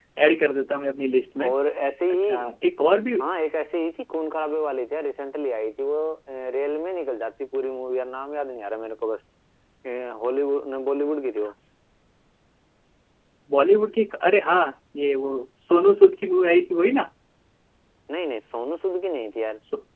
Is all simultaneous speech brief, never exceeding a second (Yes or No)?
Yes